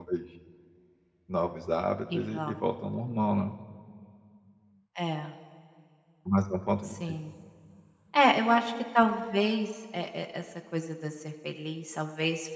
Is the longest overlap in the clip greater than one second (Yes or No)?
No